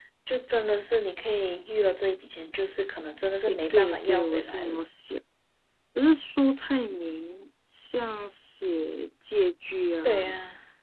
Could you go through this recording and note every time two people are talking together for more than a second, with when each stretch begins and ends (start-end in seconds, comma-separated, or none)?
3.5-4.8